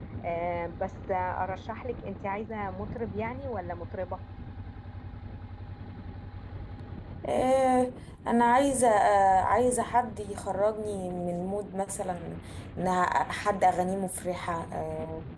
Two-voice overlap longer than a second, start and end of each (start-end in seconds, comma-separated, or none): none